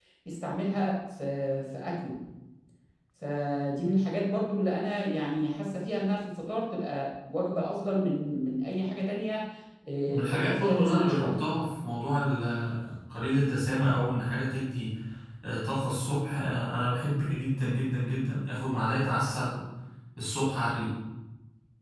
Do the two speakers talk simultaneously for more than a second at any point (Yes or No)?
Yes